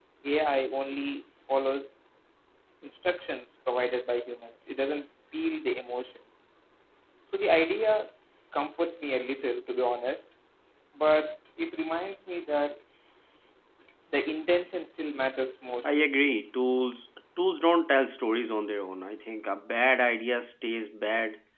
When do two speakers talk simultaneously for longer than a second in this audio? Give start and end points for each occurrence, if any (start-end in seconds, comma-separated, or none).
none